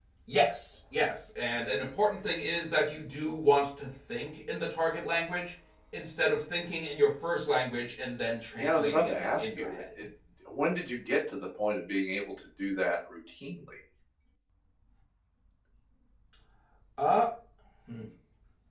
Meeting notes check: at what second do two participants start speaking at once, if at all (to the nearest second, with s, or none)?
9 s